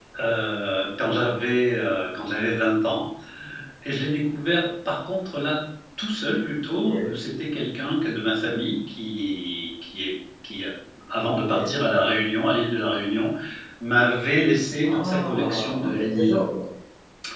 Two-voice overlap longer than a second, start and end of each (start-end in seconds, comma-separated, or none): 14.8-16.4